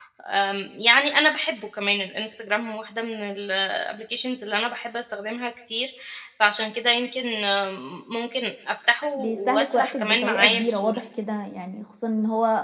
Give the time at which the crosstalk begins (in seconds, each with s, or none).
9.2 s